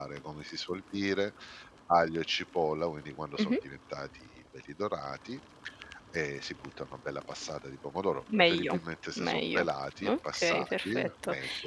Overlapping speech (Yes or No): Yes